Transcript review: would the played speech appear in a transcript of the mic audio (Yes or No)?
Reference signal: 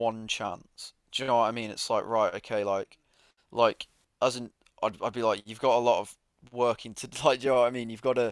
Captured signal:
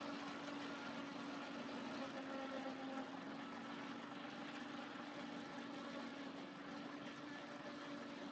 No